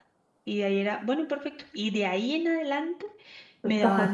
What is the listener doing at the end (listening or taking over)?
listening